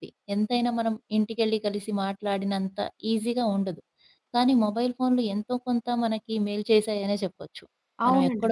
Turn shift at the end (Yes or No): Yes